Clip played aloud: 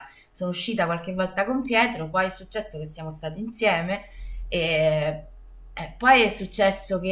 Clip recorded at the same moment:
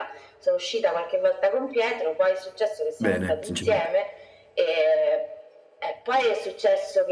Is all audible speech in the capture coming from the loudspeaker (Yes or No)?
No